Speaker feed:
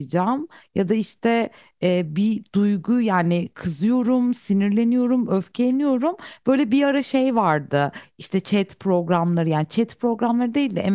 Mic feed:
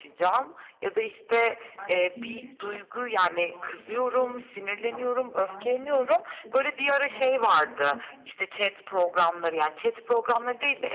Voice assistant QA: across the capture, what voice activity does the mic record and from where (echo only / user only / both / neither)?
both